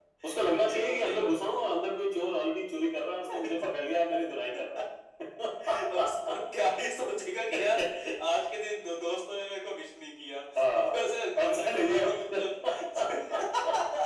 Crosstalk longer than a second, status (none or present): present